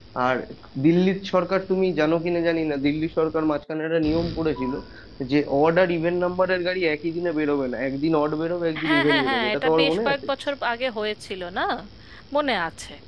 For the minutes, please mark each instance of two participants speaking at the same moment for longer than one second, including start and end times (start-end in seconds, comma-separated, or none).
8.8-10.2